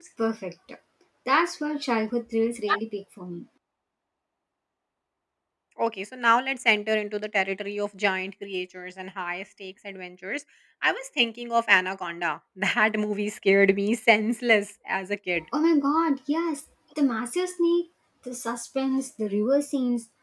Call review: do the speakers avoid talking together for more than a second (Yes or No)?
Yes